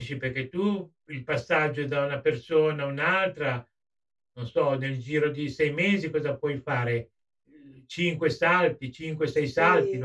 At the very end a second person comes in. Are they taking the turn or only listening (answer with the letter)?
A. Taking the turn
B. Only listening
A